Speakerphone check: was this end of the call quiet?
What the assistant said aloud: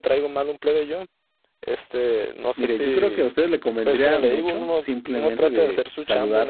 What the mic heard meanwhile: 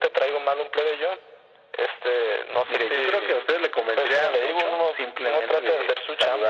Yes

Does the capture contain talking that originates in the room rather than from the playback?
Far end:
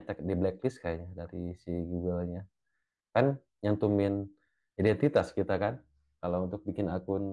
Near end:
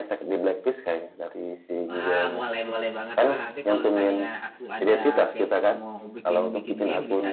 Yes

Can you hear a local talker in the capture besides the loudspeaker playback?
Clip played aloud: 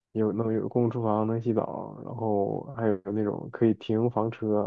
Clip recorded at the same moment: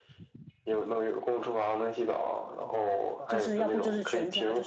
Yes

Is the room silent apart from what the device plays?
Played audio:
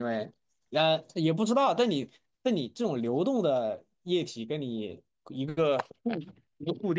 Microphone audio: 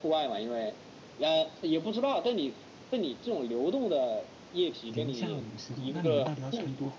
No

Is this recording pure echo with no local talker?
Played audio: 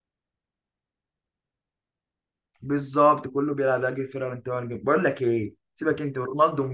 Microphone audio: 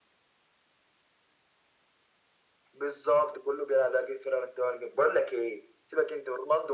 Yes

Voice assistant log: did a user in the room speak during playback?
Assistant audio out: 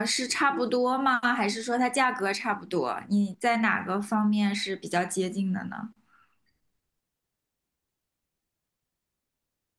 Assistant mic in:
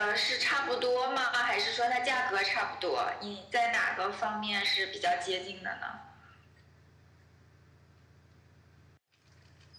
No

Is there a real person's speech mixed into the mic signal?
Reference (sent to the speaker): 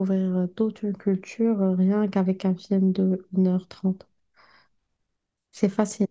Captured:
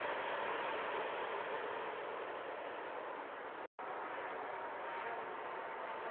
No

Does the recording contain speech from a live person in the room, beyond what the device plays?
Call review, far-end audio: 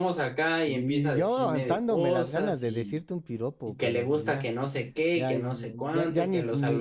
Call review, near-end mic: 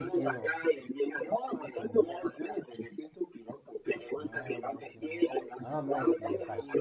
Yes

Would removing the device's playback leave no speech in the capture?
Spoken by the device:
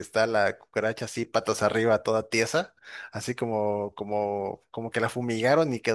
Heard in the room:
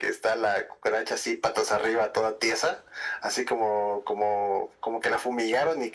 Yes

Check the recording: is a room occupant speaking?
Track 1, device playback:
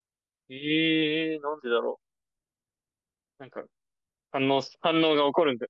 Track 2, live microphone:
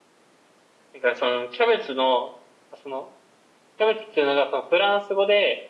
Yes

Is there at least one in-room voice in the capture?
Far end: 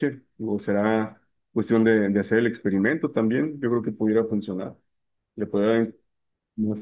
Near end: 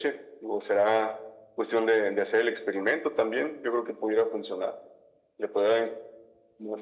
No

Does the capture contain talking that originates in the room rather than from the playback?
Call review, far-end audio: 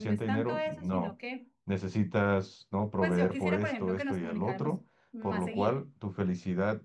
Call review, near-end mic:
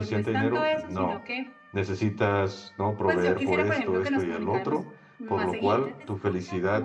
Yes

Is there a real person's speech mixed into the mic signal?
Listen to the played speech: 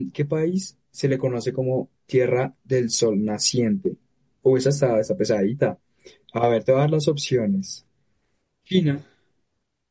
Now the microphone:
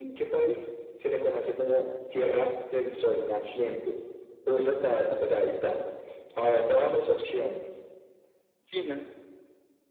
No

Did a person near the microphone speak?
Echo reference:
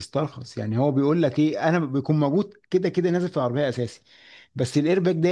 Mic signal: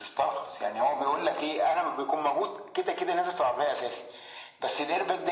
No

